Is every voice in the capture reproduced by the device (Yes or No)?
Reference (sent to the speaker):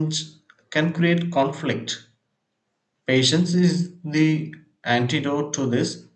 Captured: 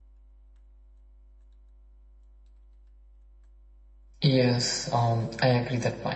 No